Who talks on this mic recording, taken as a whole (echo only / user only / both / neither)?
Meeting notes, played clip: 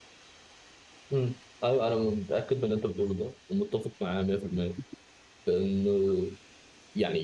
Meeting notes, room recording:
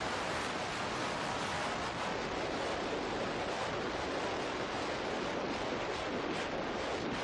neither